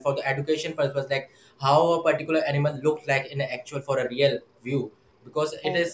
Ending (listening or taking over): listening